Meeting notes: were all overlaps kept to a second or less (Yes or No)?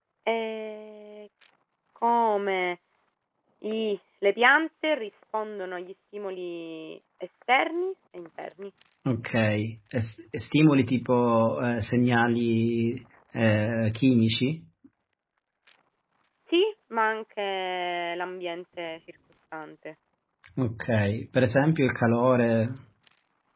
Yes